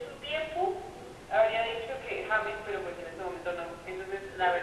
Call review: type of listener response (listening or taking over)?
listening